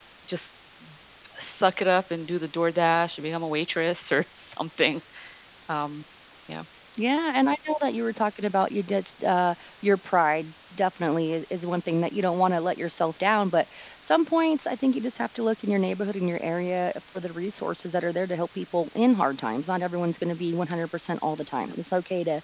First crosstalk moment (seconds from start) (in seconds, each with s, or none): none